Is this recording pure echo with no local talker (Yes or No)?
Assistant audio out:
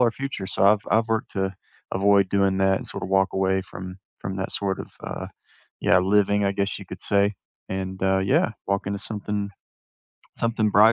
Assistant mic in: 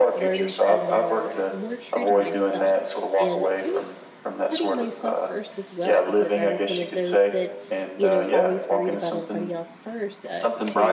No